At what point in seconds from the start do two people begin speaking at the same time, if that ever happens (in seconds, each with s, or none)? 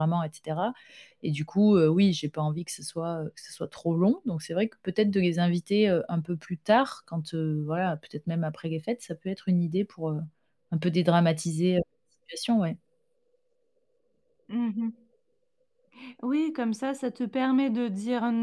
none